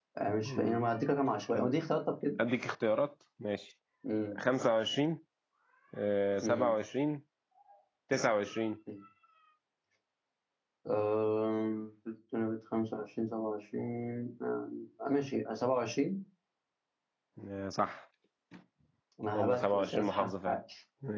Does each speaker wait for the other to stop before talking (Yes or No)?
No